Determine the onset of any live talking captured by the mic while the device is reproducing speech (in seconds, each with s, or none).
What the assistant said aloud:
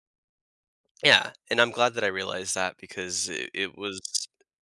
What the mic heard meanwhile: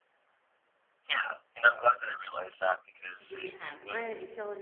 3.2 s